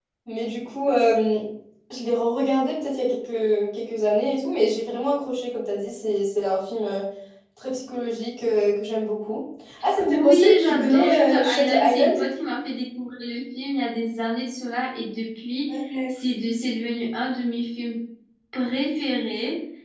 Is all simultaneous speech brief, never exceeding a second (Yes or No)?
No